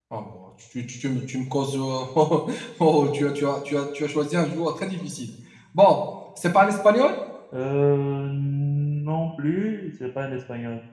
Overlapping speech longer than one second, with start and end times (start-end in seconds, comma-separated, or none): none